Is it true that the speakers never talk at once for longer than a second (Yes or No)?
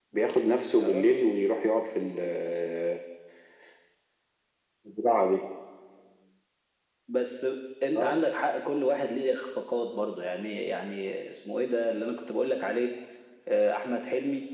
Yes